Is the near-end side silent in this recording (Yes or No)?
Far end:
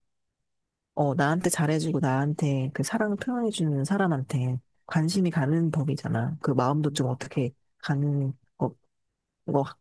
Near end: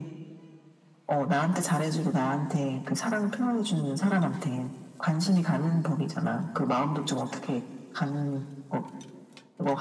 Yes